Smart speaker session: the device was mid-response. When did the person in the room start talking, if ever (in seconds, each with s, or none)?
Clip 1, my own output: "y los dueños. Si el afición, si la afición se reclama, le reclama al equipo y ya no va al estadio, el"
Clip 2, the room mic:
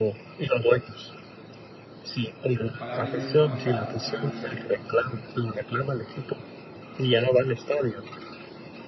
2.8 s